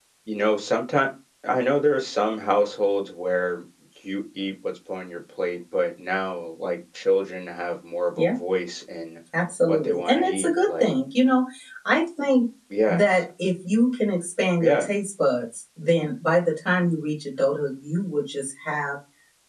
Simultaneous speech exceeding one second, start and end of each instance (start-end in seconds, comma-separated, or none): 9.7-10.9